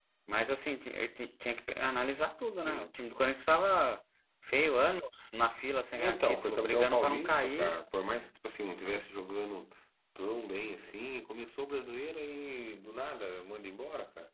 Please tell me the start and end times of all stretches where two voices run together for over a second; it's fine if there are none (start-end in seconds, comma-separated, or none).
5.9-7.8